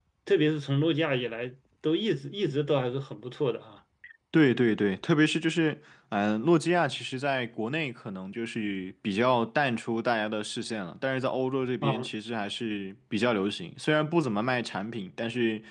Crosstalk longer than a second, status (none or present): none